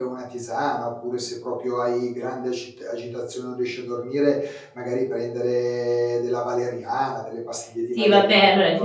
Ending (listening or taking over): taking over